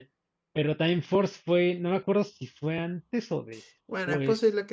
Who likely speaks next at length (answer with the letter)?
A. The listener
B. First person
A